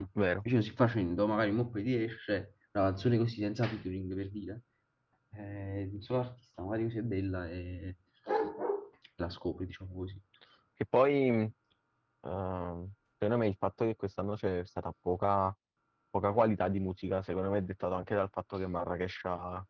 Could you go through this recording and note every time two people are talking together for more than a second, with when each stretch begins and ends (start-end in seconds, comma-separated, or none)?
none